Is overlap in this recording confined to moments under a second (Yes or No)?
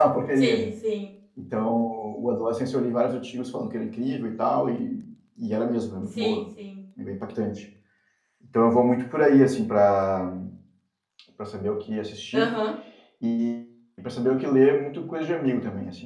Yes